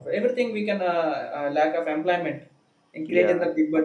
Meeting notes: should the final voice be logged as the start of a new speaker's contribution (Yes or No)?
No